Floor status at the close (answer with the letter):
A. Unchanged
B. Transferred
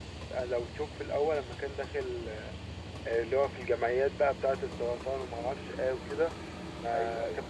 A